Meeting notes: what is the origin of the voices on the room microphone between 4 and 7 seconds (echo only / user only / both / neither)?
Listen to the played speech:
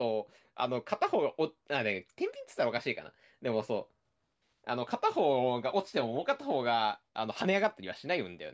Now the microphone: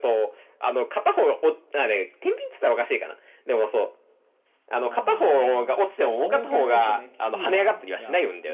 both